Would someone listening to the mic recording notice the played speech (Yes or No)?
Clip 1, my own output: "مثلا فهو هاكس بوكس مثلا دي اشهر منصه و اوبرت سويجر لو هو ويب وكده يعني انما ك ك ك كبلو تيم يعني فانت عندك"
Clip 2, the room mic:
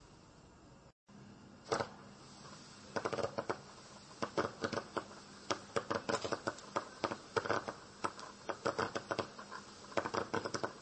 No